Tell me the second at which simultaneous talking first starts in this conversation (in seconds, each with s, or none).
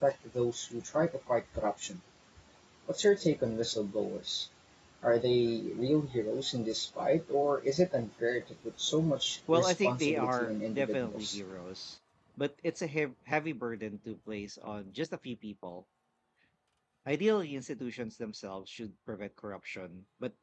9.5 s